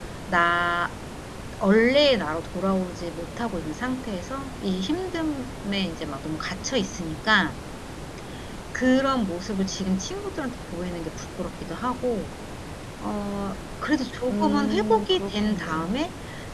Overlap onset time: 14.3 s

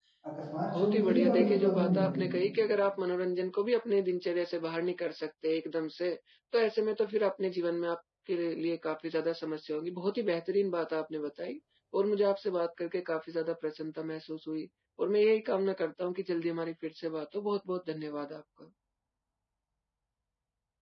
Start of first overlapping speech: 0.6 s

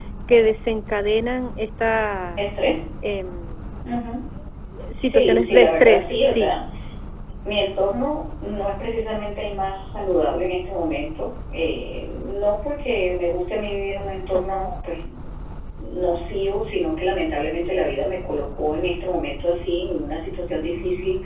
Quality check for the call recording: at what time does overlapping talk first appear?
5.1 s

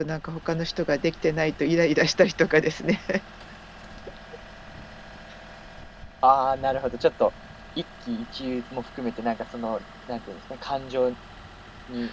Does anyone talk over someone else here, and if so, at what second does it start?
none

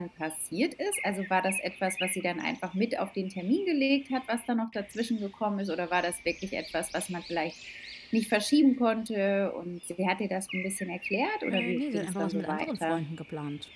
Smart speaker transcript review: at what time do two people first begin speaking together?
11.5 s

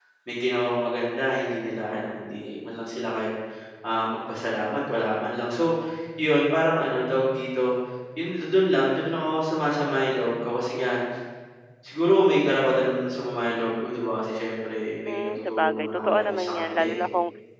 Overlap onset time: 15.1 s

